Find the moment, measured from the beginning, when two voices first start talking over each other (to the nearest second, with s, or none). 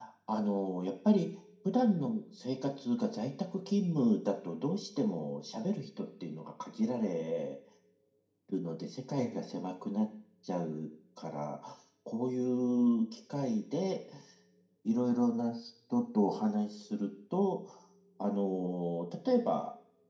none